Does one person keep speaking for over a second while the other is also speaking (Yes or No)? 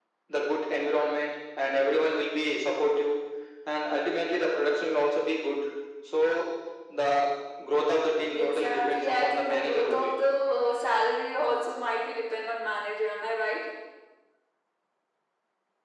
Yes